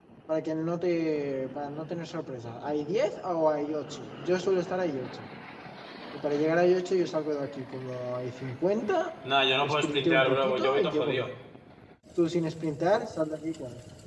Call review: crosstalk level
present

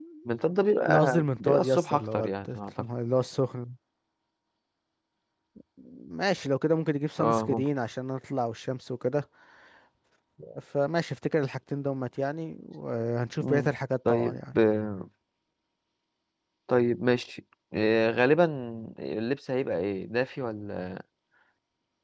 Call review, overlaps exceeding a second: present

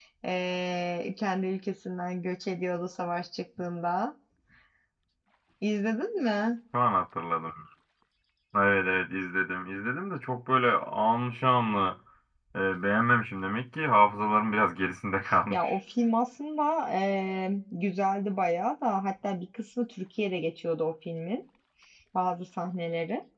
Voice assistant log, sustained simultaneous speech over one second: none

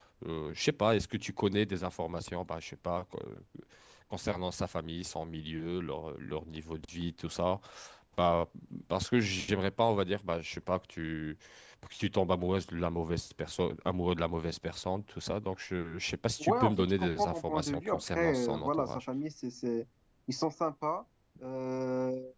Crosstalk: present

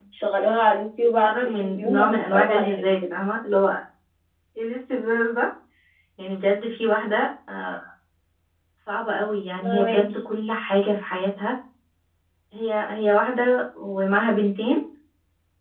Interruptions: present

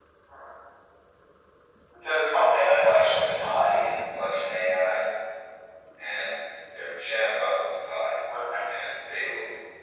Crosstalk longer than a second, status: present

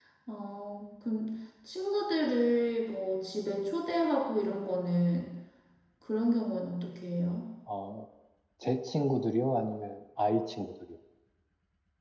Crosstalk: none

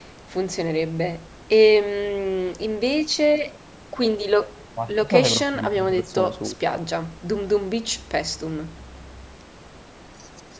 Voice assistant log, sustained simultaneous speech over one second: present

